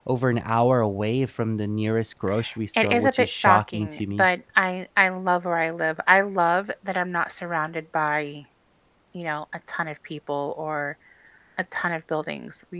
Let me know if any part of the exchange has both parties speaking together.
Yes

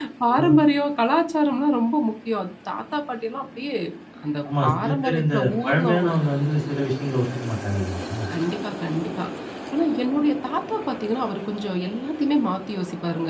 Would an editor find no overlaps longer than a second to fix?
No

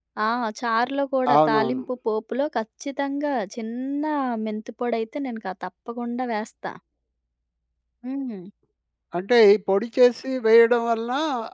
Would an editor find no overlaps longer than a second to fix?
Yes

